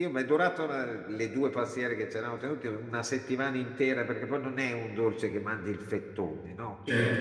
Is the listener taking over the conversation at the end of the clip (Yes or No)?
No